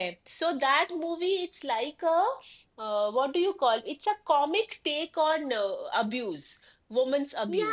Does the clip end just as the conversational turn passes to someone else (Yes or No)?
Yes